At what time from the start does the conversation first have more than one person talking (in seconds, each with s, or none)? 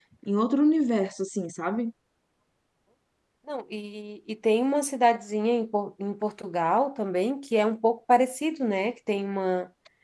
none